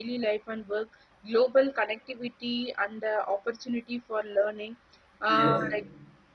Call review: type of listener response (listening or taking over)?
listening